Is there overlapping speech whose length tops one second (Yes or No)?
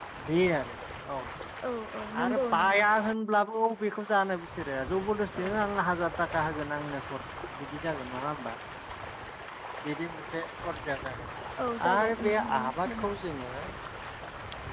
Yes